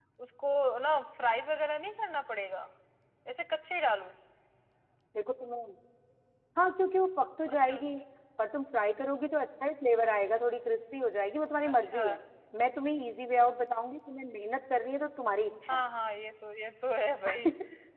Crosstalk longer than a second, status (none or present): none